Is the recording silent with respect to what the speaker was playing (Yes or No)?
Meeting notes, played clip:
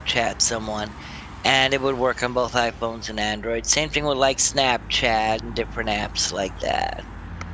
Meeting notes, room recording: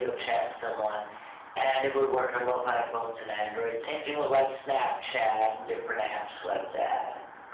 No